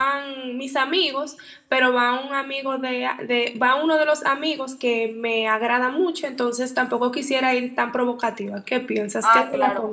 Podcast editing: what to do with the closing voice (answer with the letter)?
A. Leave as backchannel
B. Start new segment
B